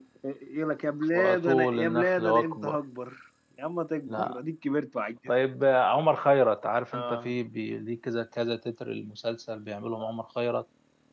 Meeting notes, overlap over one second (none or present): present